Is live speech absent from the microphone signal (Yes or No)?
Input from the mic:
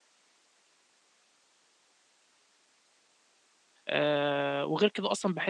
No